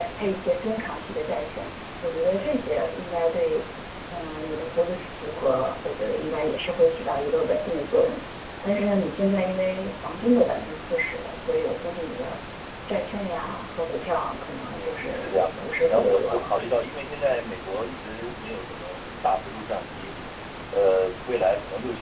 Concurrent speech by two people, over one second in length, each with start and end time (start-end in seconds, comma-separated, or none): 14.8-16.5